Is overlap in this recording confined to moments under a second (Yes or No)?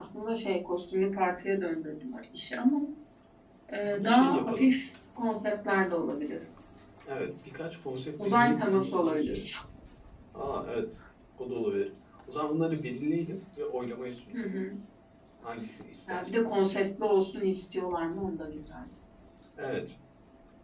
No